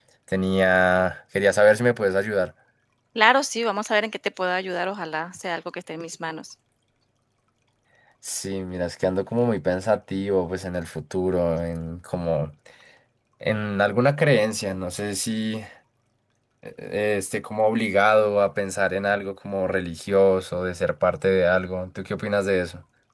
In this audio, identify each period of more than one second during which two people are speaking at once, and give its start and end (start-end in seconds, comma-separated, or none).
none